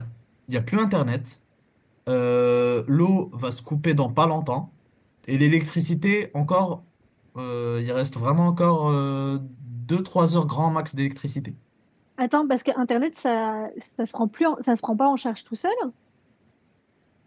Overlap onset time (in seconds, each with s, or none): none